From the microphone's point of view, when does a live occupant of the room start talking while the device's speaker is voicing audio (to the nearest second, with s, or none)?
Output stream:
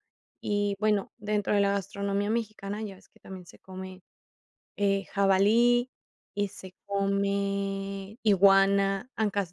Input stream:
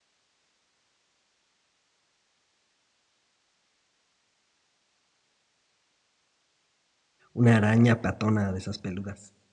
7 s